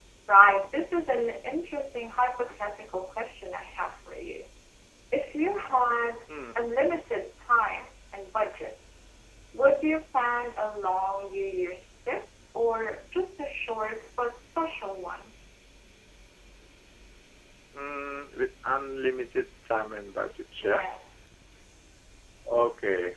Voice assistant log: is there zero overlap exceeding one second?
Yes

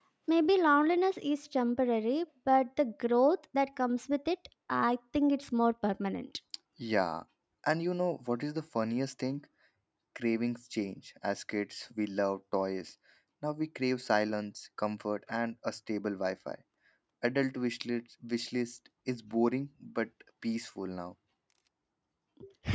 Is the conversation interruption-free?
Yes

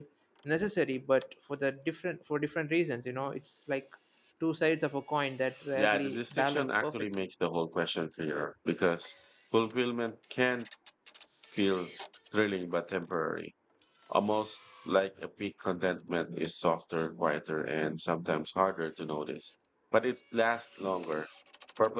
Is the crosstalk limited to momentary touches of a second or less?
No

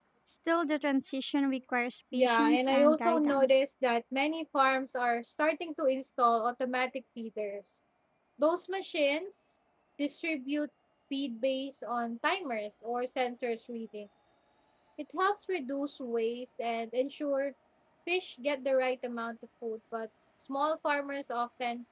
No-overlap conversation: No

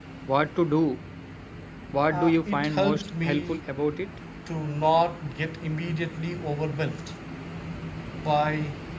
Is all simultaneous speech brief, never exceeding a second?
No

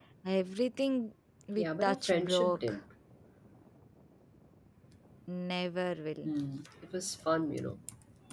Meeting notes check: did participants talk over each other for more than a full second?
Yes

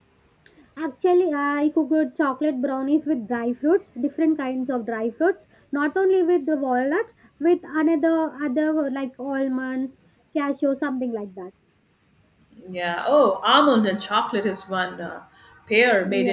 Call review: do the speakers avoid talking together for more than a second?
Yes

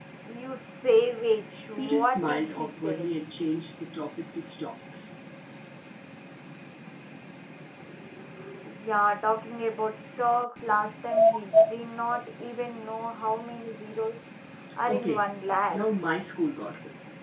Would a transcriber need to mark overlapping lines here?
Yes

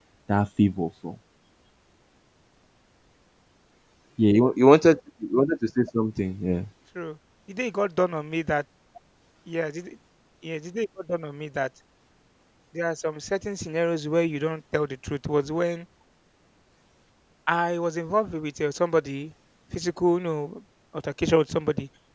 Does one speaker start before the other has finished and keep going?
No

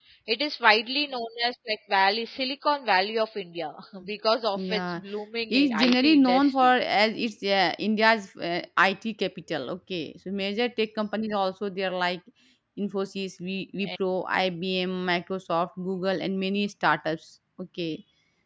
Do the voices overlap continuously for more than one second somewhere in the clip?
Yes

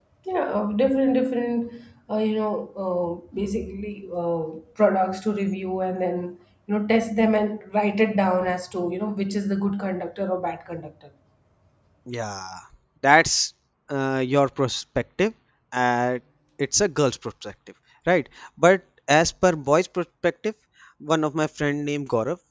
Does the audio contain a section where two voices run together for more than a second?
No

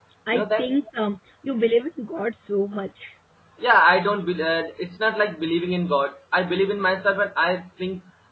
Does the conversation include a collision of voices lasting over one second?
No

